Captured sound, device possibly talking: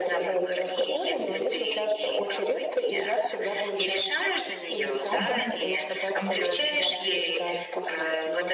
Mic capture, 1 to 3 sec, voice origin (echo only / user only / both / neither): echo only